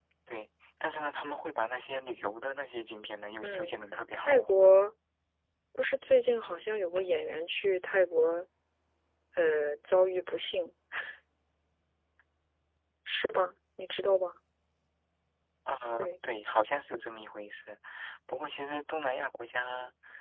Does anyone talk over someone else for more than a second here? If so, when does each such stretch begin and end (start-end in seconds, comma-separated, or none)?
none